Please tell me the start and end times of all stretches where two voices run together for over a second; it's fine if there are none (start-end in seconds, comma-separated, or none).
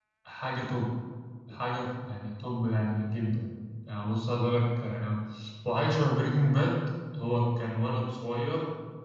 none